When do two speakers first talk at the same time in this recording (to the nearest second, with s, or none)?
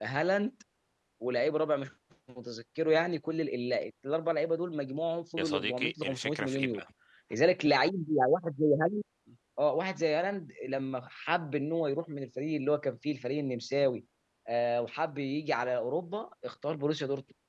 5 s